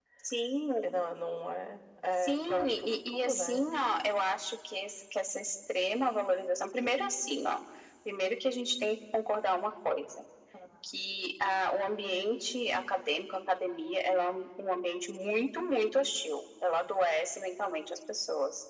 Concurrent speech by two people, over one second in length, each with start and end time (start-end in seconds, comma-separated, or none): 2.2-3.7